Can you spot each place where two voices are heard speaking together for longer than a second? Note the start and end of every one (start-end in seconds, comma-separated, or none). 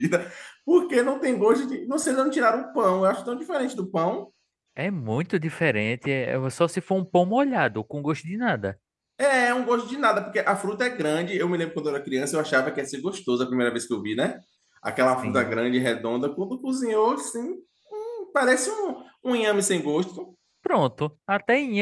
none